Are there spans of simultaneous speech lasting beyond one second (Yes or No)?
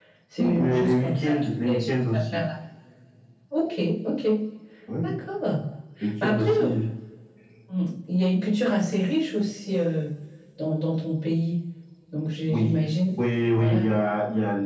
Yes